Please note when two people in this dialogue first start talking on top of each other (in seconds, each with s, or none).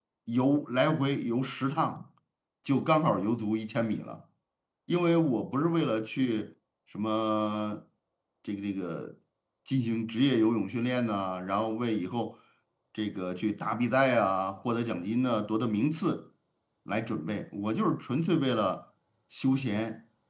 none